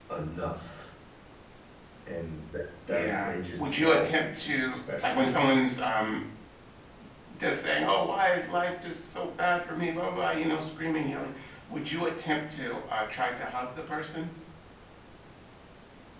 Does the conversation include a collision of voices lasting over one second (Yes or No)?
Yes